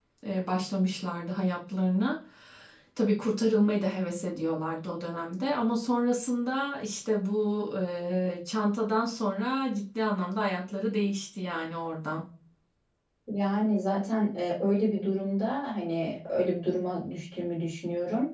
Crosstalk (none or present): none